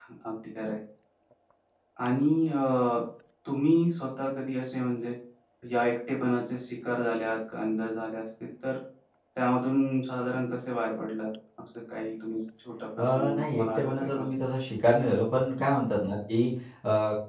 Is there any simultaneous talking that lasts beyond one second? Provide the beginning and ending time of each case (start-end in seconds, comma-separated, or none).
13.0-14.2